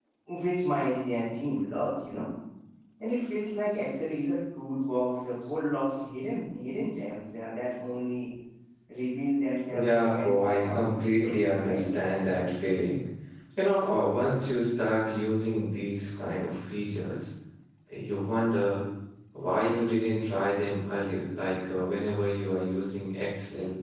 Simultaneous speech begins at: 9.8 s

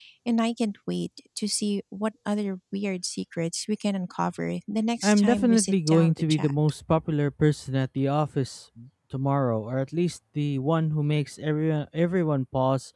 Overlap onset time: 5.0 s

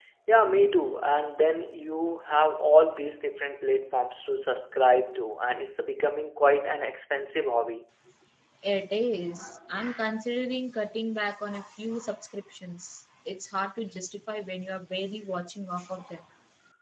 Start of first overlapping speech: none

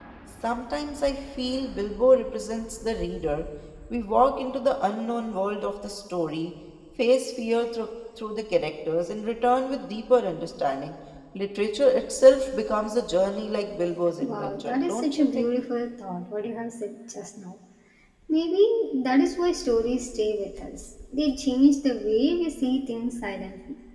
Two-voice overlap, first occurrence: 14.2 s

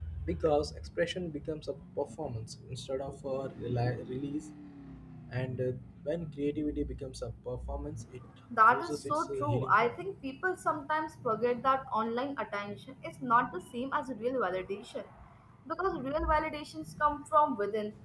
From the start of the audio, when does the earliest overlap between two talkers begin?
8.7 s

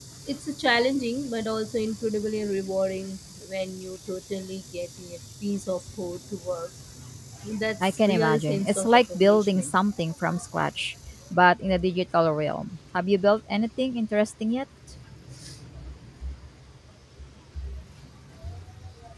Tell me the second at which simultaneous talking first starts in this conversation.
7.8 s

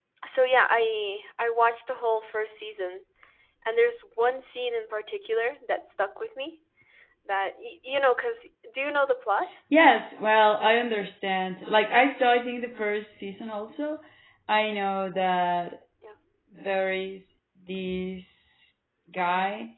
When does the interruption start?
none

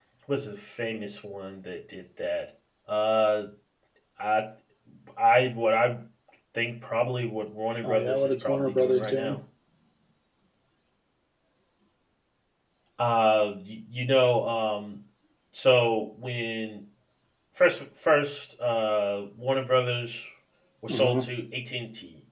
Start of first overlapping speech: 7.8 s

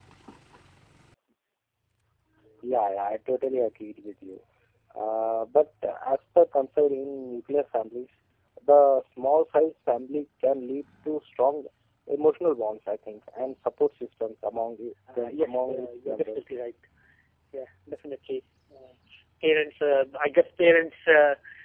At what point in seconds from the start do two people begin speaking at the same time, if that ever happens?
15.1 s

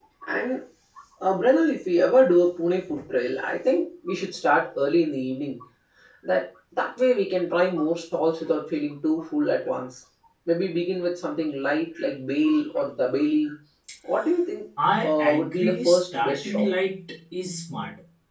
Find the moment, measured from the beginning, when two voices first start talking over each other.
15.1 s

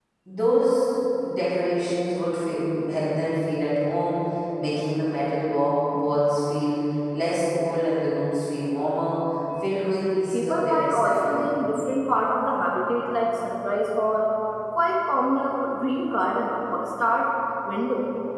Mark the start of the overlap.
10.3 s

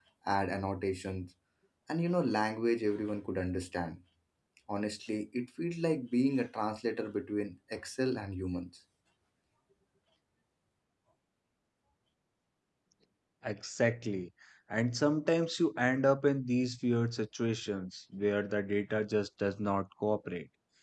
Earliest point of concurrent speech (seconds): none

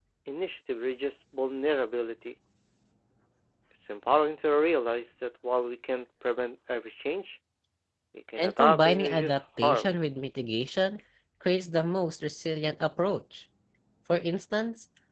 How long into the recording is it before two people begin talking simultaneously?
8.4 s

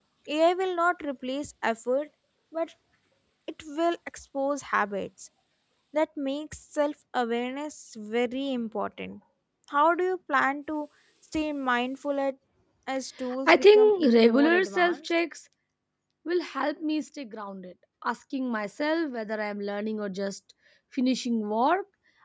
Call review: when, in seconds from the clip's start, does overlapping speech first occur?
13.5 s

